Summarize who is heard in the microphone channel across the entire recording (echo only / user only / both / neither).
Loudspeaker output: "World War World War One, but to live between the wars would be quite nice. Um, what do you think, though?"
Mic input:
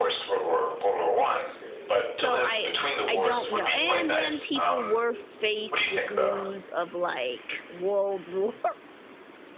both